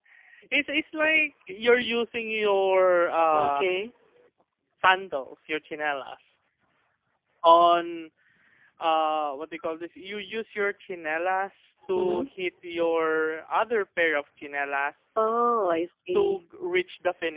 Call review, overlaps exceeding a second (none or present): none